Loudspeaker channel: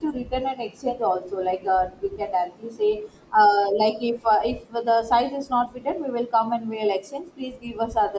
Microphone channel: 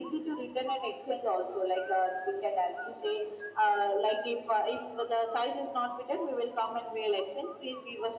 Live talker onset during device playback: none

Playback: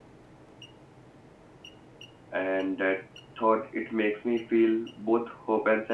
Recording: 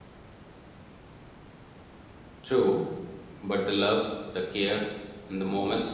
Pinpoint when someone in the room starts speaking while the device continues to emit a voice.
2.4 s

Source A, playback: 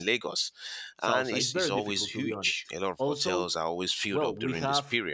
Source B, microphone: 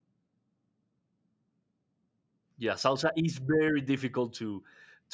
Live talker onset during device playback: 2.6 s

